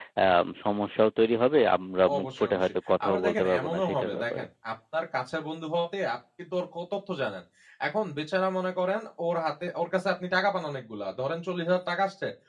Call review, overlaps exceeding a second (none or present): present